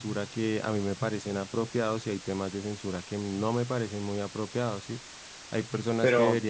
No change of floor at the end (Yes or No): Yes